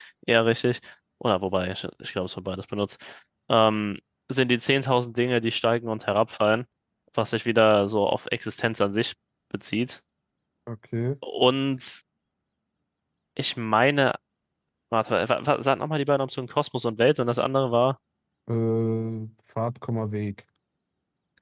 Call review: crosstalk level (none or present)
none